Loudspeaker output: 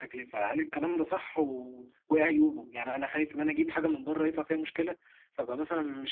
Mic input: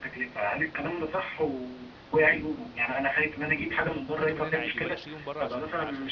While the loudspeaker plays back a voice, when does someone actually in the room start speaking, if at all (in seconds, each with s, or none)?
4.1 s